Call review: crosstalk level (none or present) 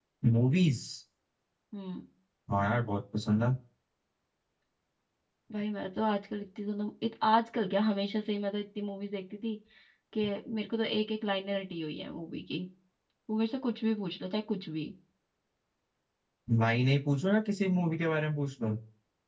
none